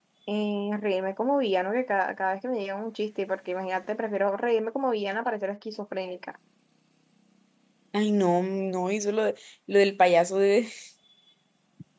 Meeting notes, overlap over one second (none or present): none